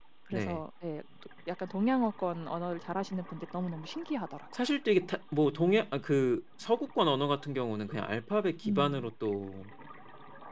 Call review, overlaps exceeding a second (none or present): none